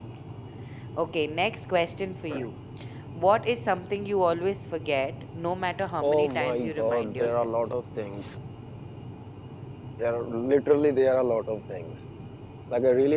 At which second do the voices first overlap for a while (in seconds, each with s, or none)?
6.0 s